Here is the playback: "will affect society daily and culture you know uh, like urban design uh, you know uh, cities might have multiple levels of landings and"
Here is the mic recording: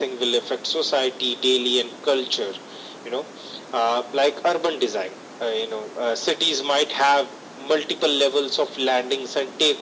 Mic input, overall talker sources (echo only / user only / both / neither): echo only